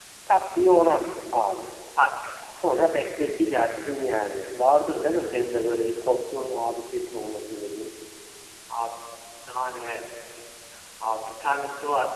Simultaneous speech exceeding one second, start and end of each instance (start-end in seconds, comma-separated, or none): none